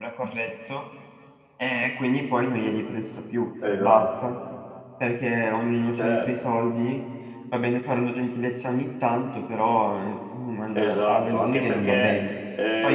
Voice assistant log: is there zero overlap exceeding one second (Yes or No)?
No